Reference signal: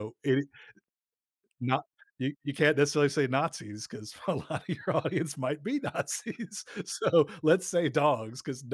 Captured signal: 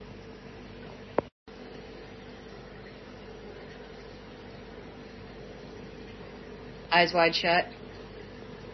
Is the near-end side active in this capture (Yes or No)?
Yes